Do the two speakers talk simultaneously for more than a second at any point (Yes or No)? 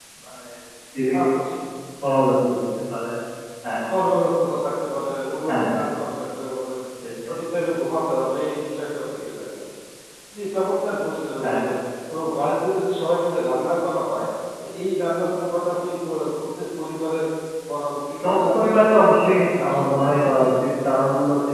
Yes